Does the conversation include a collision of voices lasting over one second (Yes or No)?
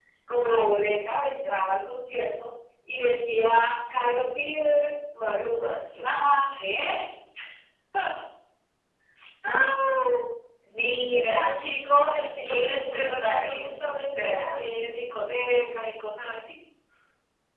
Yes